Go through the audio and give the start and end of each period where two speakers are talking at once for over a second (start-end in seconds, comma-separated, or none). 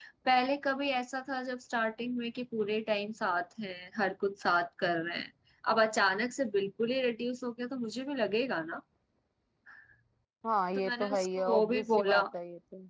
10.7-12.2